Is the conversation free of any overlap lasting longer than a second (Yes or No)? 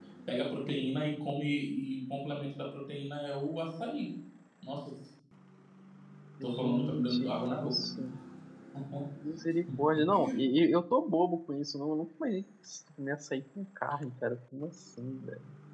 No